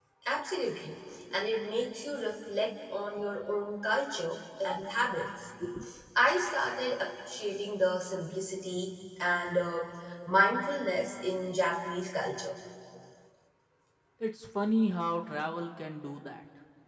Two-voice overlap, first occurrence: none

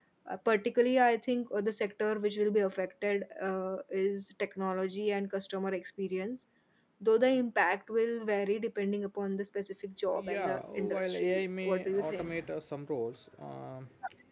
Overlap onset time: 10.1 s

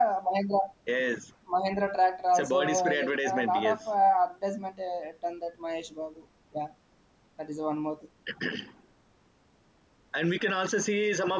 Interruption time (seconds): 2.3 s

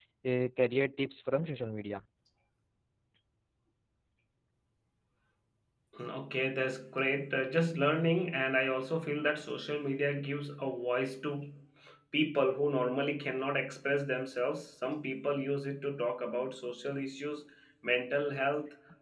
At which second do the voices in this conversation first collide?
none

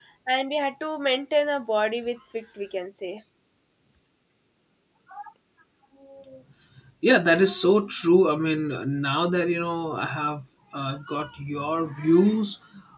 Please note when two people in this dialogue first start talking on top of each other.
none

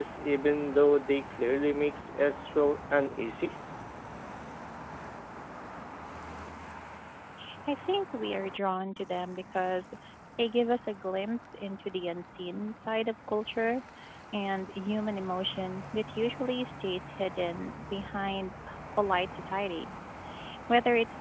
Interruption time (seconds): none

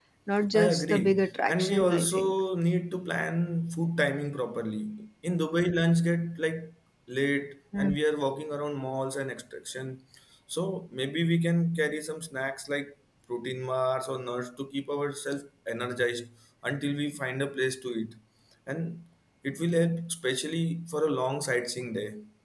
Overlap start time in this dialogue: 0.5 s

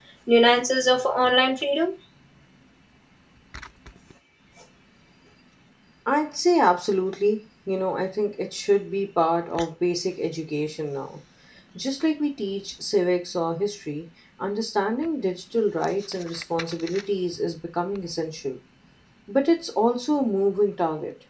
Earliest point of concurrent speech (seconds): none

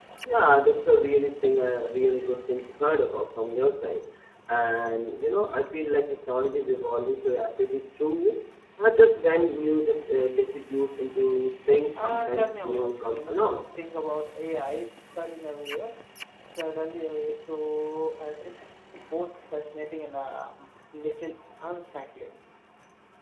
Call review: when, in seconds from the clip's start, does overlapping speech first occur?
11.9 s

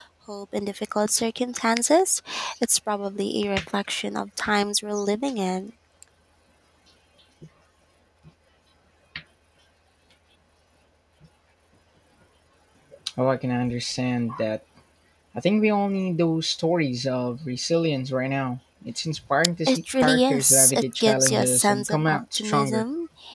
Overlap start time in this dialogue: 19.7 s

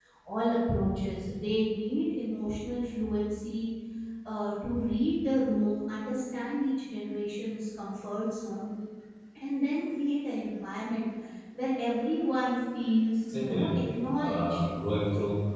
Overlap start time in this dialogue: 13.3 s

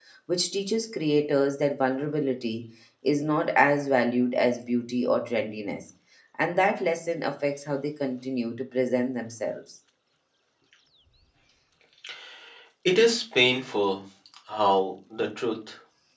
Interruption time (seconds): none

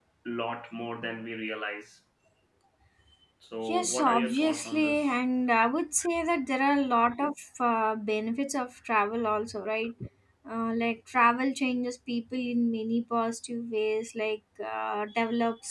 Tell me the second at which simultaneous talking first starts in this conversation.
3.6 s

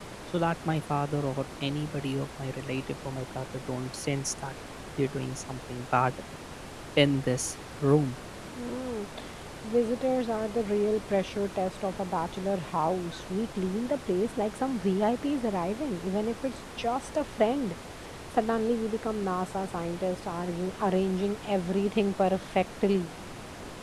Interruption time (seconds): none

